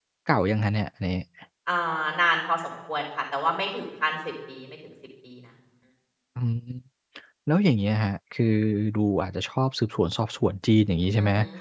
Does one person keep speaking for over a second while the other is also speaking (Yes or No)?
No